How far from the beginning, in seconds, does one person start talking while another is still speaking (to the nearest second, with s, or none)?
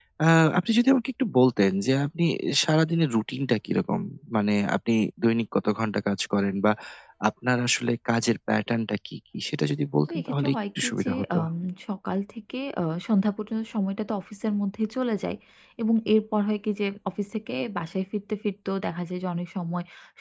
10 s